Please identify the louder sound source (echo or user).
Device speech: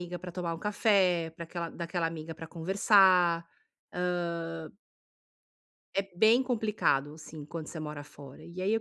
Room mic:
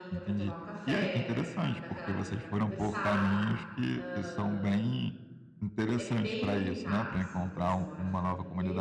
user